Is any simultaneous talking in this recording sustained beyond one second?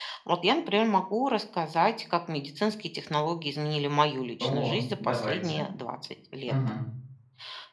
Yes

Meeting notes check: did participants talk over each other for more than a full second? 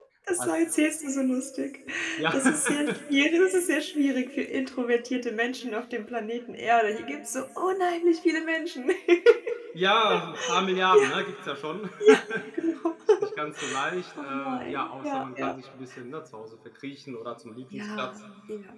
Yes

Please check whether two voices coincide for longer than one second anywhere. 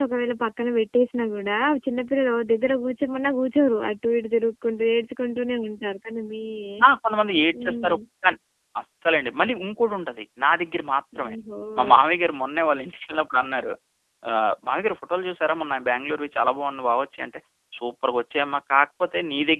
No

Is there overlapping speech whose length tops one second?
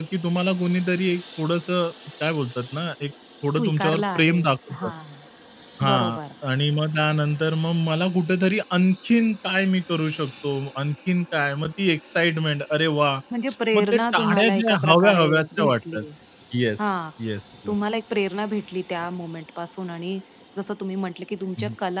Yes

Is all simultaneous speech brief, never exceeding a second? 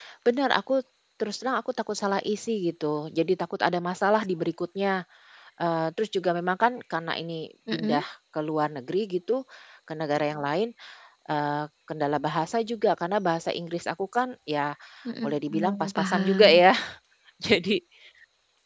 No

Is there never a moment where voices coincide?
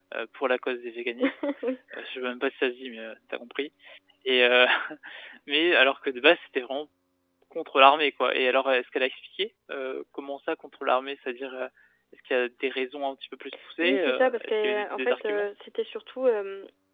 No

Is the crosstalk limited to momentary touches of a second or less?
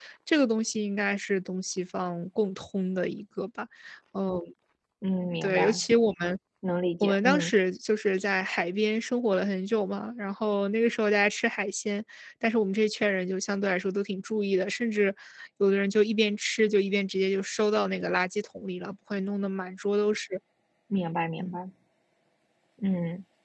Yes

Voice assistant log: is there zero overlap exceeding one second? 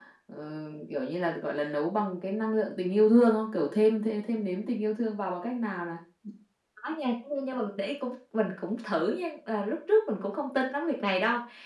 Yes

